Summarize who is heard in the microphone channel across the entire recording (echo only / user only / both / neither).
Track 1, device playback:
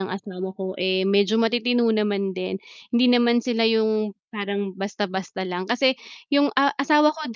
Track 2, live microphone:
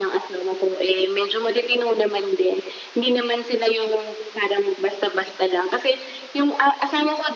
echo only